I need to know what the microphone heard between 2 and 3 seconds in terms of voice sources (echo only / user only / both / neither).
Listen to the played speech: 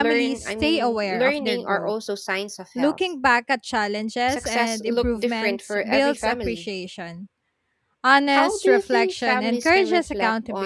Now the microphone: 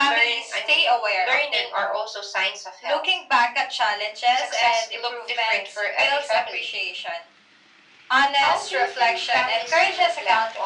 echo only